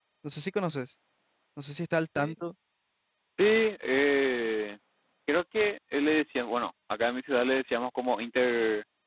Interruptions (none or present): none